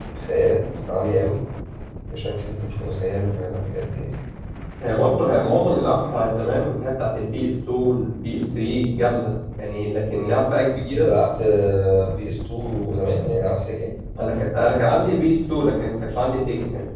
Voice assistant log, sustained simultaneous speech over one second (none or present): none